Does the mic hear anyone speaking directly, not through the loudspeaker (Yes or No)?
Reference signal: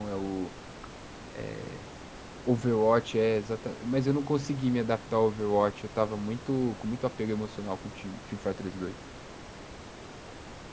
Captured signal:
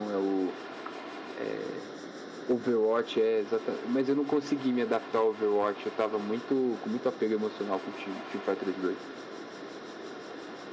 No